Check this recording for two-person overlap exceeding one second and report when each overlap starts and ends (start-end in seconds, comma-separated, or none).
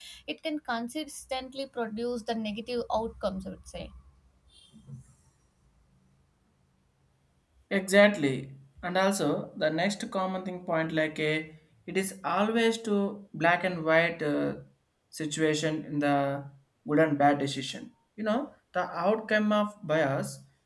none